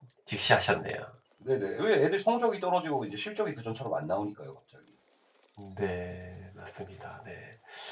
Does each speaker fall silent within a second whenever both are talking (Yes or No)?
Yes